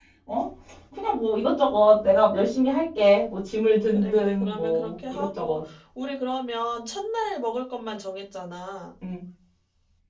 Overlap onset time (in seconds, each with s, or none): 3.9 s